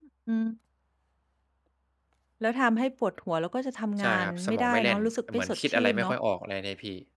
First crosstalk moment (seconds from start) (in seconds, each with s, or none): 4.0 s